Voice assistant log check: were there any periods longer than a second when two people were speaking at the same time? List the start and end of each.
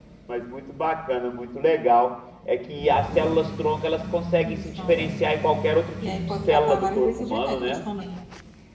6.3-7.8

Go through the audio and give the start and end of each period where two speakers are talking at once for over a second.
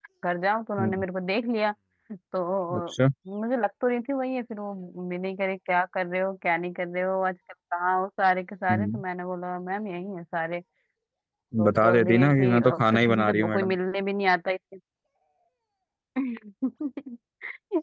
11.7-13.8

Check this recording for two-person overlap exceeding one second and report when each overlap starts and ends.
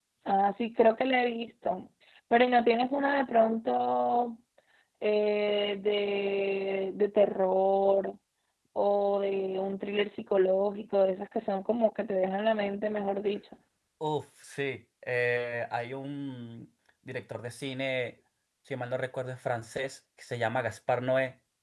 none

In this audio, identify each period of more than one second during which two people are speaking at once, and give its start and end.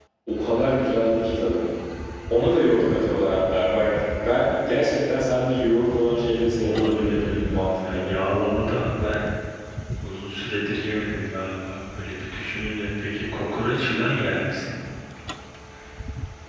6.0-8.0

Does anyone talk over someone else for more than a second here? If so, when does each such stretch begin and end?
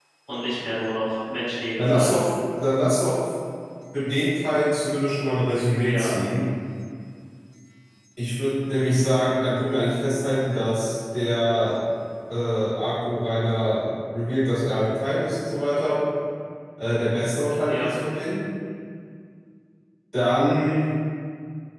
none

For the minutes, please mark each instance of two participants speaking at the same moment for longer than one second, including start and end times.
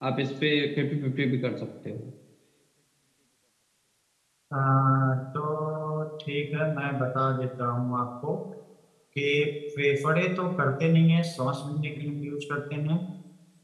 none

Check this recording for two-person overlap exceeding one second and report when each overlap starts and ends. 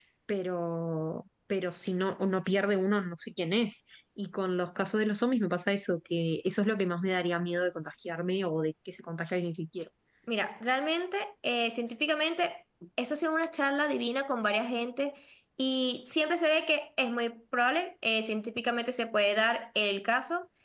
none

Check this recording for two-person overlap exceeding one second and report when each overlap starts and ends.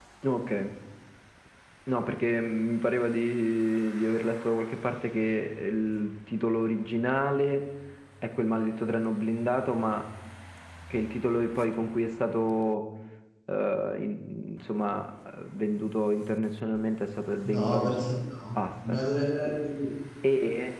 none

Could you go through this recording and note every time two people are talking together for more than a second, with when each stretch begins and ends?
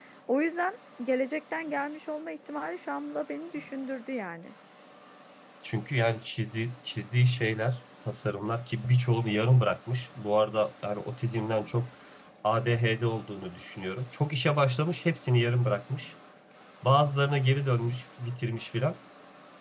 none

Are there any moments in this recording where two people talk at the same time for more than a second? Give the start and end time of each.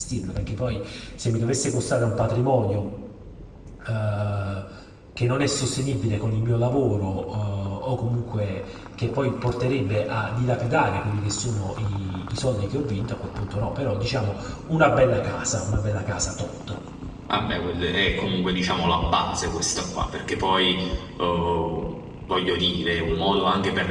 none

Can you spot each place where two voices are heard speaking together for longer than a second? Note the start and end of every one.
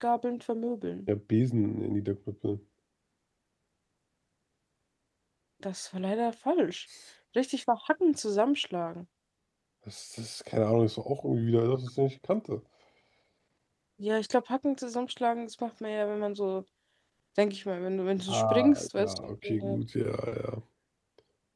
18.3-19.8

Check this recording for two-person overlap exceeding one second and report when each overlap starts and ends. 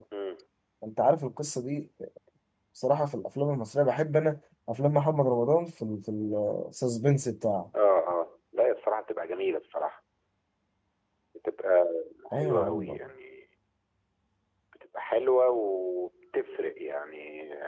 none

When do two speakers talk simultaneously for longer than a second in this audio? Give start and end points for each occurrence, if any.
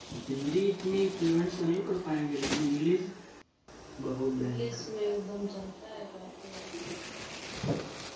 none

